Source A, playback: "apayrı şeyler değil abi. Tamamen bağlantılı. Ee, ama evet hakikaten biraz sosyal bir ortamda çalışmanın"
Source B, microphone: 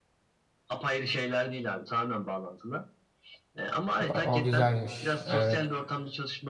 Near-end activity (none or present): present